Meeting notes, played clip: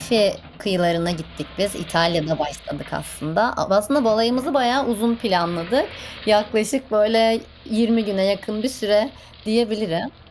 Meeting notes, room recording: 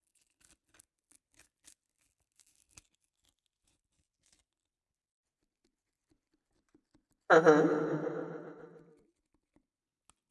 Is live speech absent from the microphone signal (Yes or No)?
No